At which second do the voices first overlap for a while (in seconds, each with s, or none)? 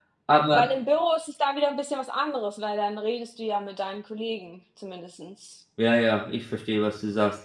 none